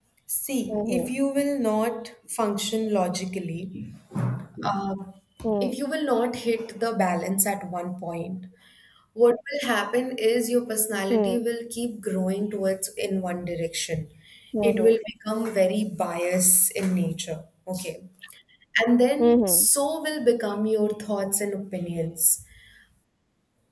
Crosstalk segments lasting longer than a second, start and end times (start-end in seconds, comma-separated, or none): none